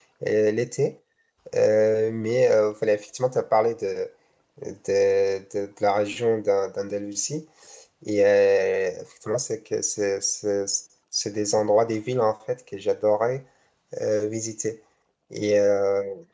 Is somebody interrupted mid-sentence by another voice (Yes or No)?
No